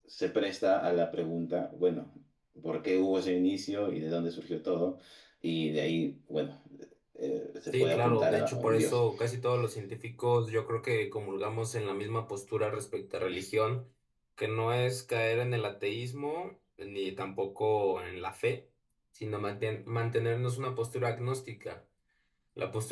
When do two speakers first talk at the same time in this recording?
7.7 s

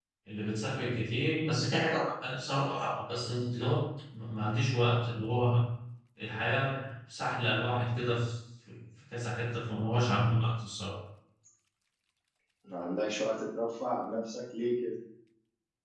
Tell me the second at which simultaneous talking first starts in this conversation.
none

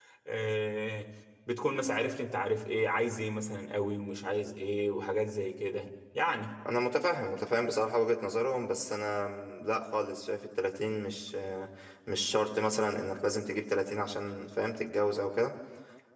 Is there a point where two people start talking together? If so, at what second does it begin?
none

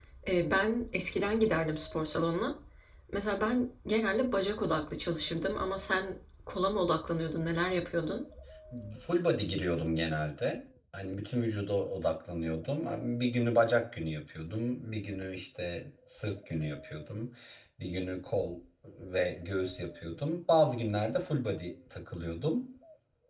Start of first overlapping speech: none

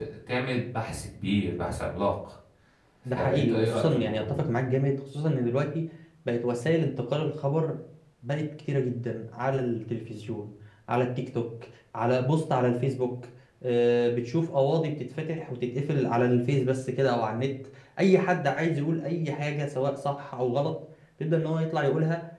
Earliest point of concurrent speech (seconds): 3.1 s

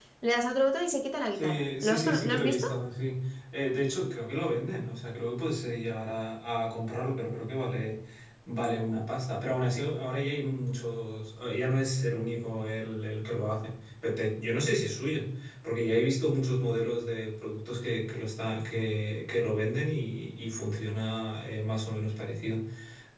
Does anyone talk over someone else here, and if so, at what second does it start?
1.4 s

